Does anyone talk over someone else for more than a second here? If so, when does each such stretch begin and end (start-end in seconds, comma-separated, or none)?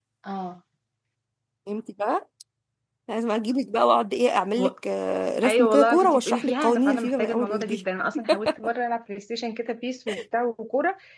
5.5-7.8